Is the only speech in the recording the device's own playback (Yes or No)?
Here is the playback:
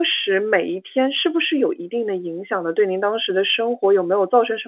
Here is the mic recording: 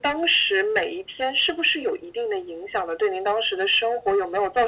Yes